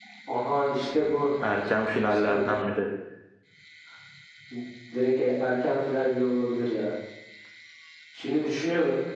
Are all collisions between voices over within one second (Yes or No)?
Yes